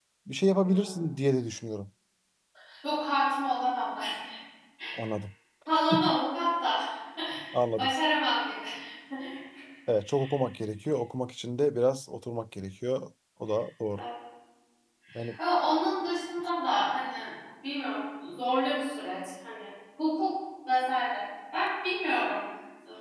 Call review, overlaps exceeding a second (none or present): none